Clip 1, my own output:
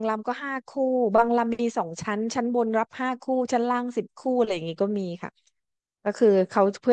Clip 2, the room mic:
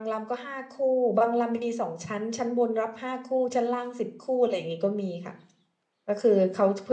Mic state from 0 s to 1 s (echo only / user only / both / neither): echo only